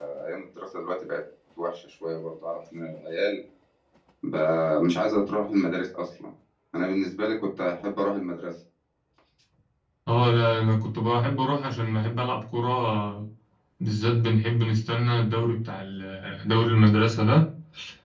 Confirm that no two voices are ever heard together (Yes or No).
Yes